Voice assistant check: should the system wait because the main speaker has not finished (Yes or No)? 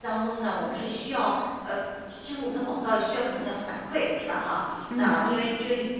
Yes